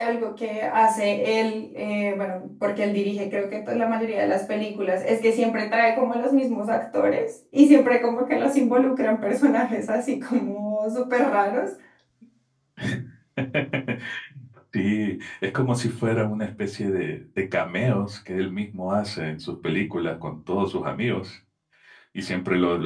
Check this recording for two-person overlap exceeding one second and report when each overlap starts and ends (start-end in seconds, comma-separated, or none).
none